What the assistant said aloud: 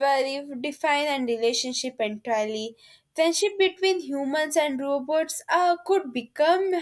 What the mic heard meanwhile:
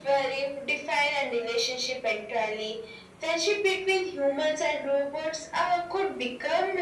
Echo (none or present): present